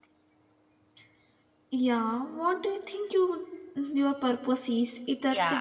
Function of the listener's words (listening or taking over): taking over